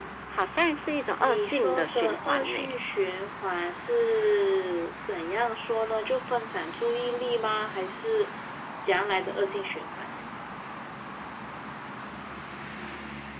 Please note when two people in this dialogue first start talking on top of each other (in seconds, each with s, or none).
1.2 s